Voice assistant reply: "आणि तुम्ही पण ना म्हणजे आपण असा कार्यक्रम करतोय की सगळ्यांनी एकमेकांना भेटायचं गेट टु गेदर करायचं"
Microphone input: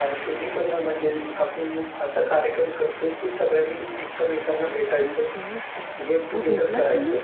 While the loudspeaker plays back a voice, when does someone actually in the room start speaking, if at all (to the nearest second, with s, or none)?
5 s